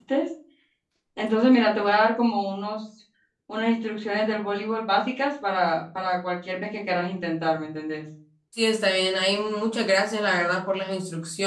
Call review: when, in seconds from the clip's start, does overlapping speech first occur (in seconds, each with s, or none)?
none